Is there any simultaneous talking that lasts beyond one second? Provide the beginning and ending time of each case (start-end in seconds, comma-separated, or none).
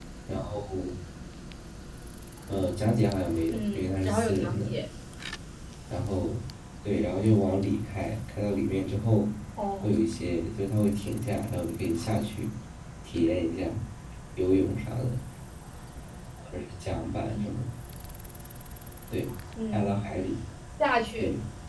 3.5-4.7